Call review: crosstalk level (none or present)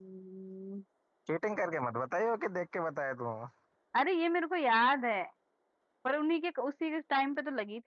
none